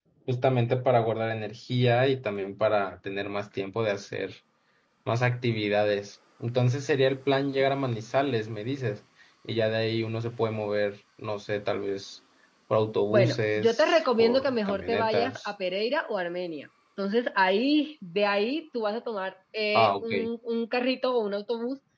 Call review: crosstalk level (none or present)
present